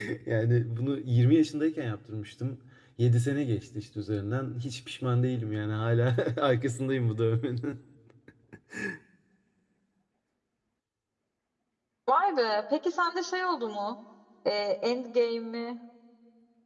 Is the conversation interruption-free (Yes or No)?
Yes